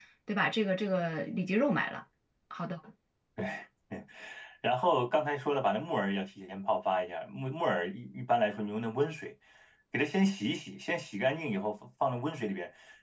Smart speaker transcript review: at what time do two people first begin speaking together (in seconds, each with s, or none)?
none